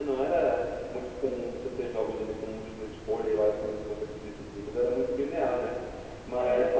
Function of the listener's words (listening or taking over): listening